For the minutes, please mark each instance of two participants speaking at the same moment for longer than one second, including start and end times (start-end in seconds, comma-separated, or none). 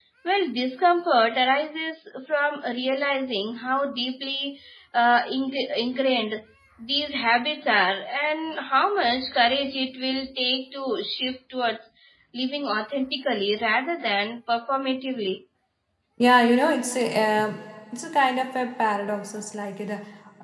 none